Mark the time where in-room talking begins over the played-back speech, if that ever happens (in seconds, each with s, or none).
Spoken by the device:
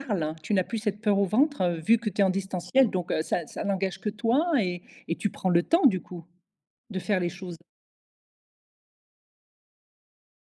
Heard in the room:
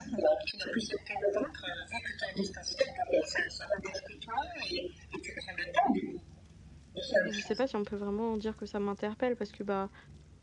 7.2 s